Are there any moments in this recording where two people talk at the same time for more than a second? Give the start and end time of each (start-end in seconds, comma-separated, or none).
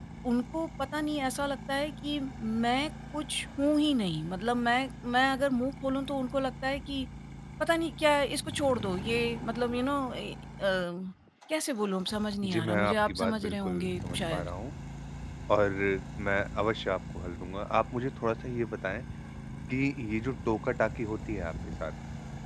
12.4-14.5